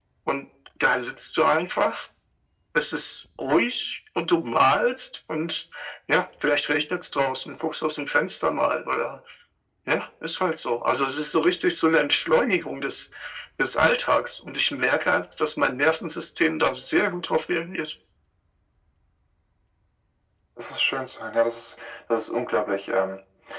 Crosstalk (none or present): none